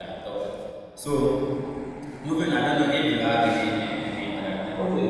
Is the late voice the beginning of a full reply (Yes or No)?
Yes